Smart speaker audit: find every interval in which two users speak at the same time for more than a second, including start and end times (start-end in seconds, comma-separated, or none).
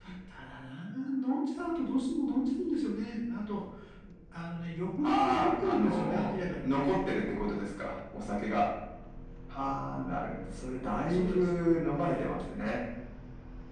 5.0-6.9